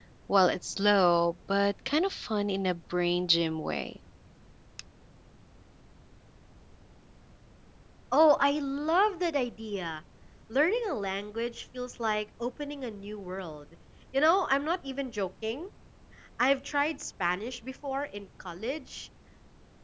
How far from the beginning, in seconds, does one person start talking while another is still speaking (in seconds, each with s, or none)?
none